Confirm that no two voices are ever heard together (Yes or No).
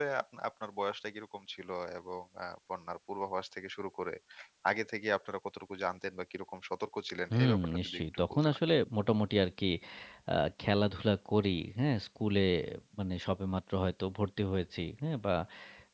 No